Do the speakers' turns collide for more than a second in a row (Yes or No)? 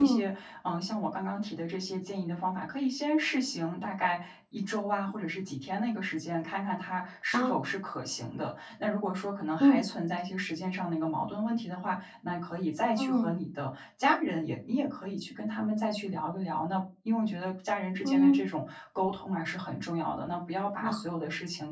No